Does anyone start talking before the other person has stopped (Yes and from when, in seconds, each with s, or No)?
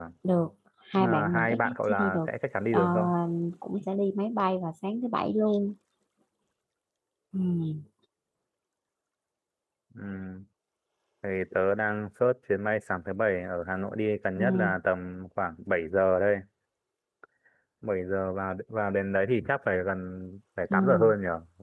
Yes, from 1.0 s